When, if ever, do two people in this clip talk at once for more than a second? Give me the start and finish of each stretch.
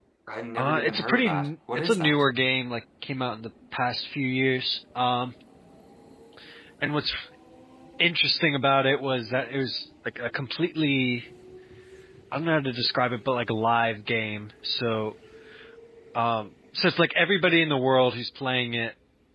0.6-2.2

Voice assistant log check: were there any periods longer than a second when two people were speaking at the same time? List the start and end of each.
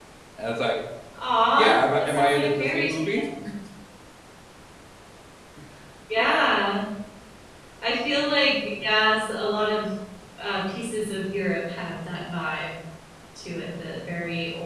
1.6-3.0

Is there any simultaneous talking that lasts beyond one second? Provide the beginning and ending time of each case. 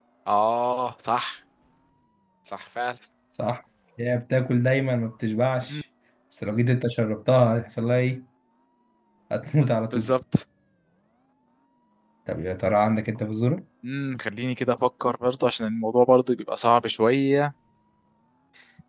none

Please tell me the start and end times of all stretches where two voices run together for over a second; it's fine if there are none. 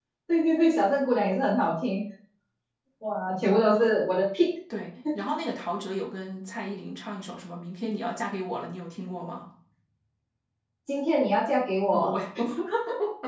none

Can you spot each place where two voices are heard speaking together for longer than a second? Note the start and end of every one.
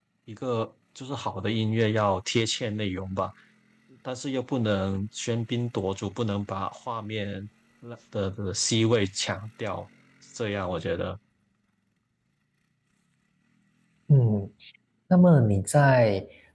none

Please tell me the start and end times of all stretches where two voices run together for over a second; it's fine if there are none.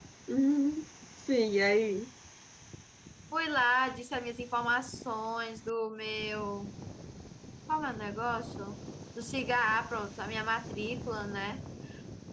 none

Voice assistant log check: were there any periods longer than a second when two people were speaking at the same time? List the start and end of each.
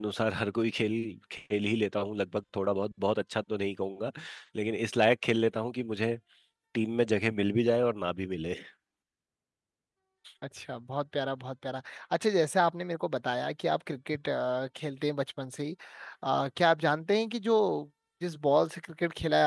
none

